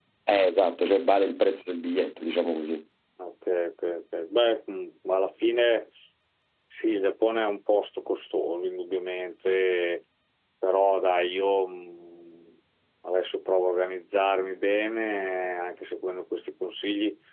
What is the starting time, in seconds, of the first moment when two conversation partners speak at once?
none

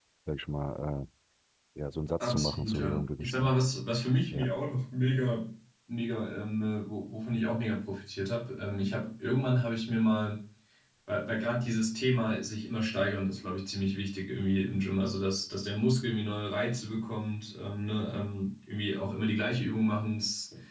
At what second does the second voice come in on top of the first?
2.2 s

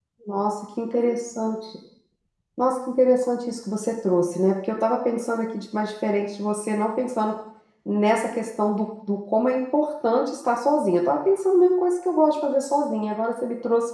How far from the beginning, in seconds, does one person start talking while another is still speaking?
none

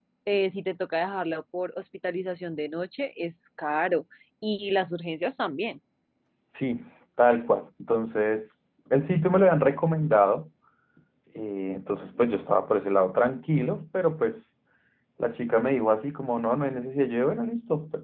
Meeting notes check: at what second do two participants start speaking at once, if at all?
none

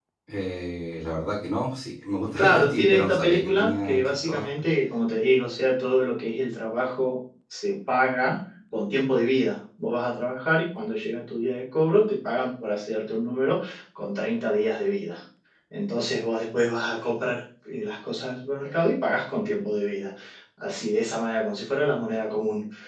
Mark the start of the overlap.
2.4 s

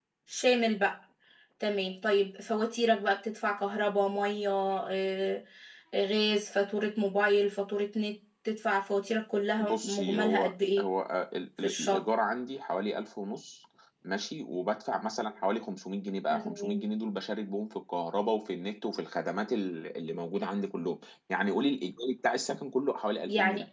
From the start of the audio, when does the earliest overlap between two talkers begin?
9.6 s

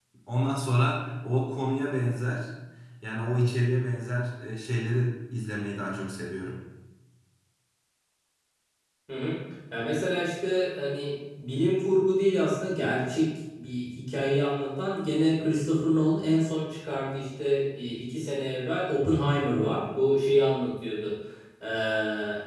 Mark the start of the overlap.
none

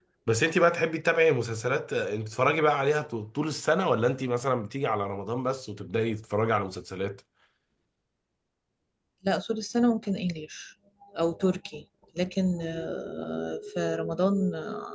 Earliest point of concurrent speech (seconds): none

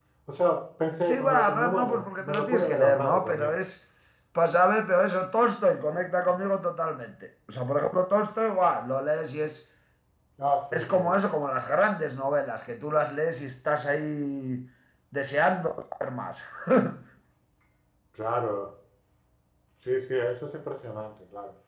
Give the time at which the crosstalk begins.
1.1 s

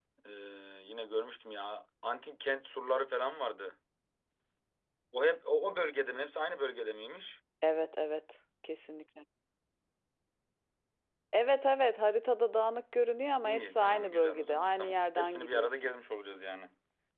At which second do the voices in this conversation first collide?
13.4 s

